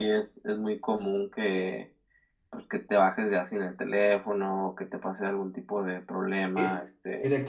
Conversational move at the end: taking over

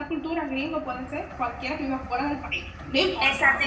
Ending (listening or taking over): taking over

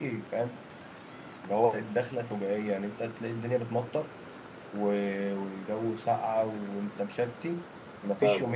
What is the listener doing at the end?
listening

